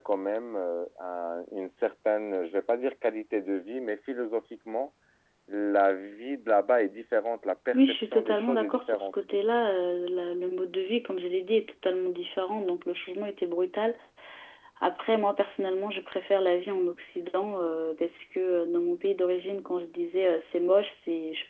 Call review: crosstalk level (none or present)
present